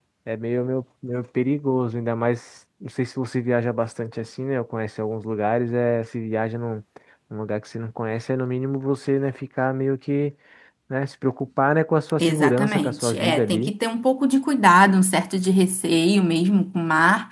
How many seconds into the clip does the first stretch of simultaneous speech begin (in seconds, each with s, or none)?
12.2 s